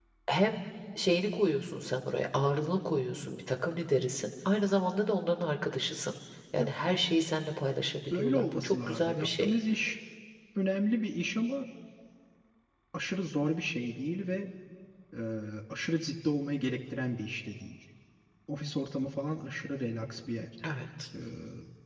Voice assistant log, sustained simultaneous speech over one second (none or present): present